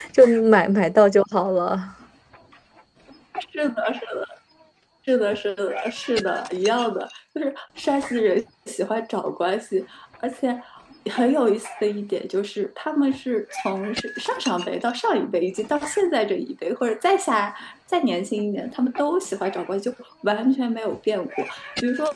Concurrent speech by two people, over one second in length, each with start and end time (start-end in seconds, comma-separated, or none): none